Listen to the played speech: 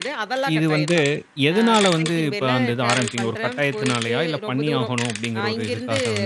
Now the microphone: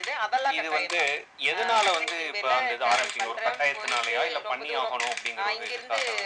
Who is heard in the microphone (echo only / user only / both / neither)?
echo only